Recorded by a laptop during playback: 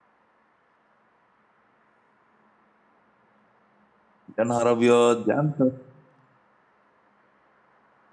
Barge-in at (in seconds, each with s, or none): 4.4 s